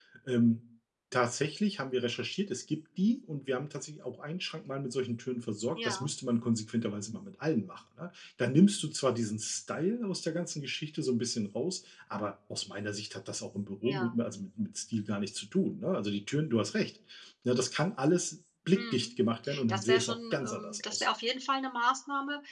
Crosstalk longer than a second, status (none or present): present